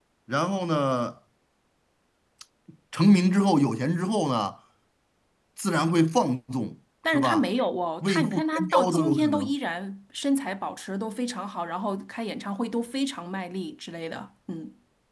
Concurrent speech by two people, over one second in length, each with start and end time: 8.0-9.5

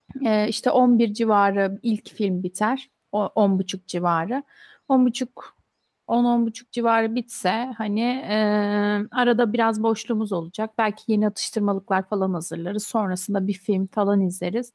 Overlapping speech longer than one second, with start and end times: none

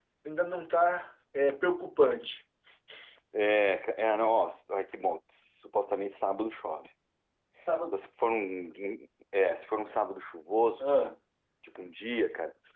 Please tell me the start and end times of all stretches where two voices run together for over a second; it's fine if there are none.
none

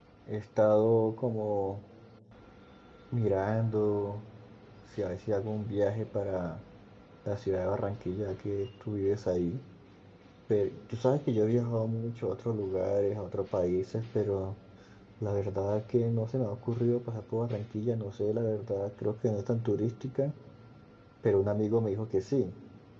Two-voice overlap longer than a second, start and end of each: none

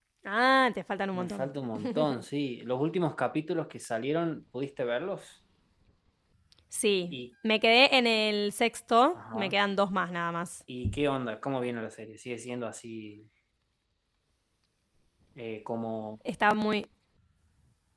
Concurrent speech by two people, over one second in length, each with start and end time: none

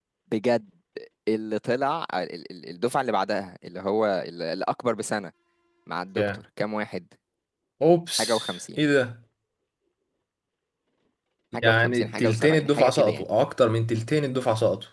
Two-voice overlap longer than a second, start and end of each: 11.6-13.2

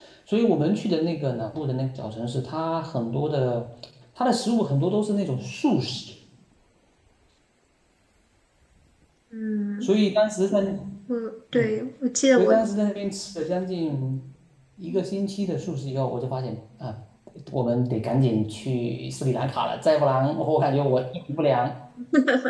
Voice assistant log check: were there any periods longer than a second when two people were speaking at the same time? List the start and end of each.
none

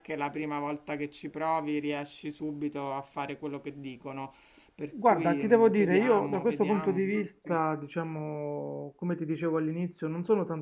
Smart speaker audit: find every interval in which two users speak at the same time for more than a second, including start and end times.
5.0-7.6

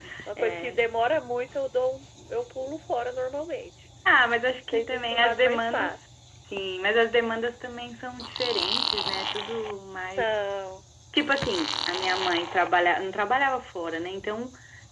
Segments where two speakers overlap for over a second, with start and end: 4.7-6.0

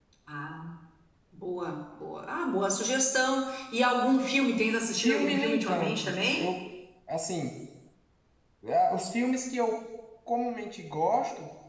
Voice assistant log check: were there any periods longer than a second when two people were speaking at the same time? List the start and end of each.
5.0-6.5

